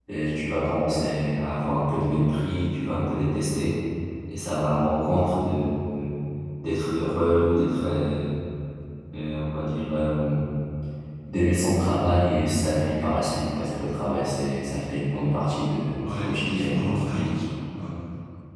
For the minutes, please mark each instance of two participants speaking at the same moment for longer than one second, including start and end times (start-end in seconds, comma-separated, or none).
16.1-17.3